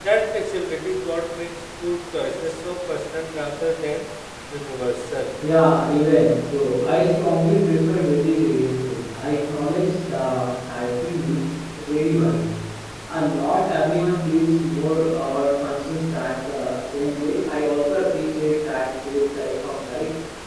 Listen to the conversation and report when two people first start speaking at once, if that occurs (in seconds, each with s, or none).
none